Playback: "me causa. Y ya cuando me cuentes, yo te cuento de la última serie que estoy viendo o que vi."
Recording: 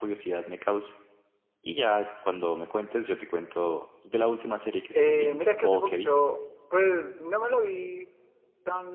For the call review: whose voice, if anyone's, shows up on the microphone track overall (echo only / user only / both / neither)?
both